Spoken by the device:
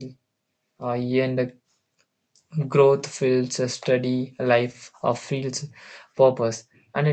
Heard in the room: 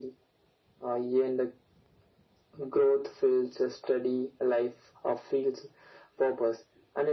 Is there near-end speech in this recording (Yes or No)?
No